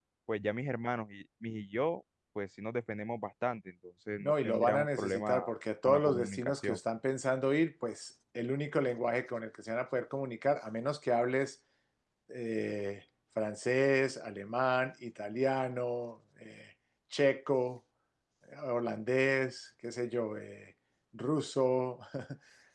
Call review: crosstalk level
present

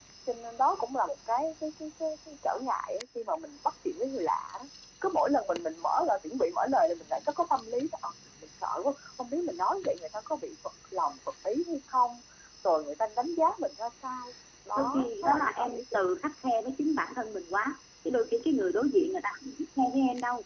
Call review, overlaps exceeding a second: present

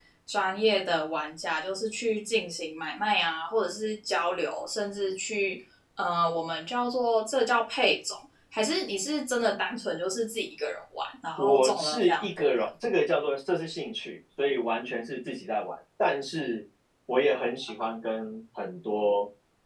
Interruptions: present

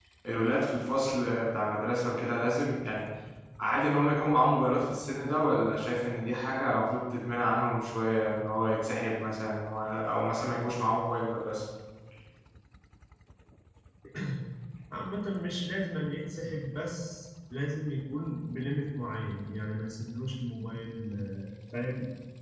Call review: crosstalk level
none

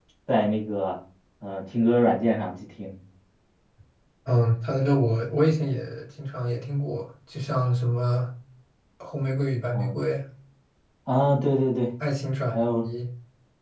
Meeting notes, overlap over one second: none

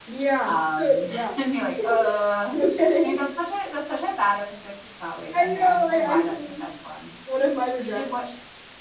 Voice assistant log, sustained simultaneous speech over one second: present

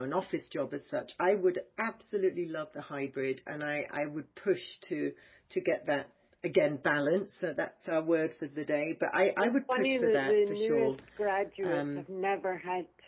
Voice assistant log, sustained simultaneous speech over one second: present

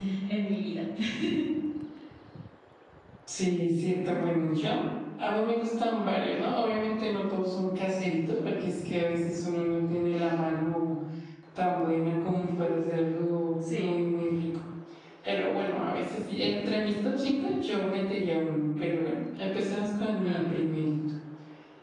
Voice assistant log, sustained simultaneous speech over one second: none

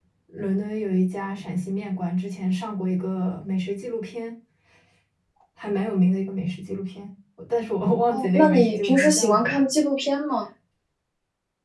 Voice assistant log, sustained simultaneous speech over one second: present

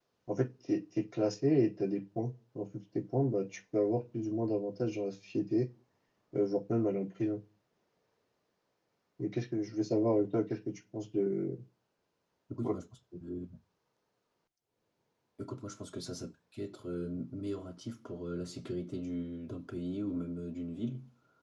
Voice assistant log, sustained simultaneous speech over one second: none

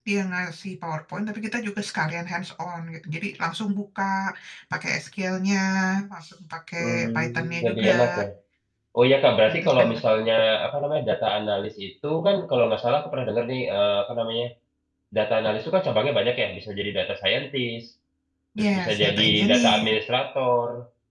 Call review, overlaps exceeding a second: present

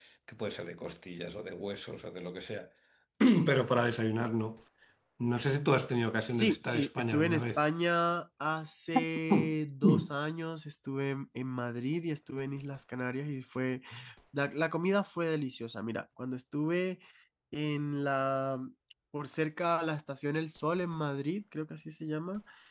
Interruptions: present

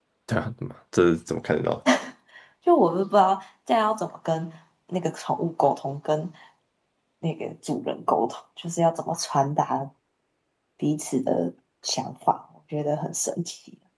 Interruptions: none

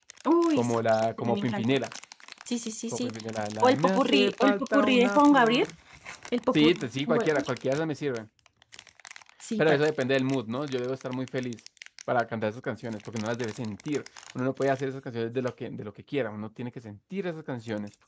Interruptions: present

